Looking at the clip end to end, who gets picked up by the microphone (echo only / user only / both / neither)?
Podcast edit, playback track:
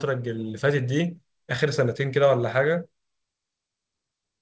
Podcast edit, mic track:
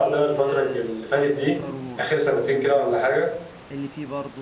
both